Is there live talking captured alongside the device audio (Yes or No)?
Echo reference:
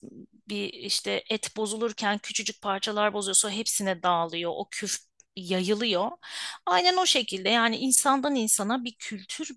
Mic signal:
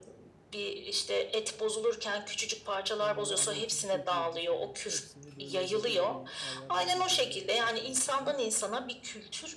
Yes